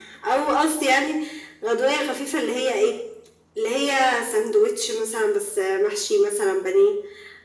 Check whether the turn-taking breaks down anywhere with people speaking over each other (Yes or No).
No